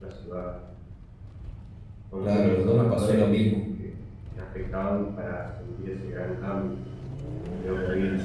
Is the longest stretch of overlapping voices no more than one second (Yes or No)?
No